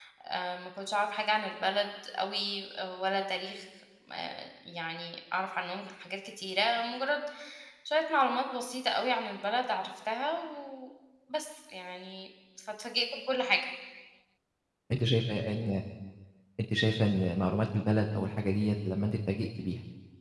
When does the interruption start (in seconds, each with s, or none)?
none